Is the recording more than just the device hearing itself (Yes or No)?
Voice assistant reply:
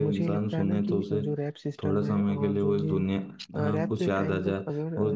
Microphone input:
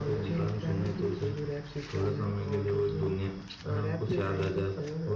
No